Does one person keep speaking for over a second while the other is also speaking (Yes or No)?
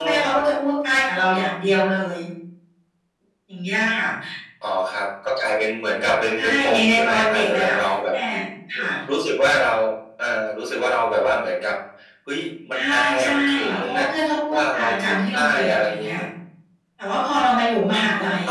Yes